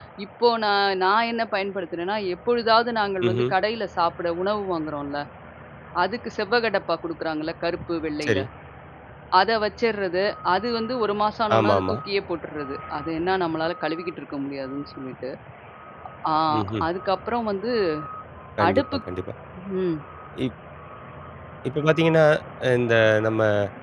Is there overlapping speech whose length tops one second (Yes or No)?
No